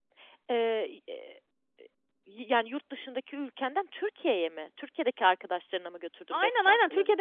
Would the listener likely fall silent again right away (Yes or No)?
No